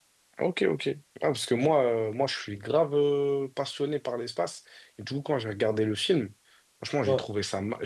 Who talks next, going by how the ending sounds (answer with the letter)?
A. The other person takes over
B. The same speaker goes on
B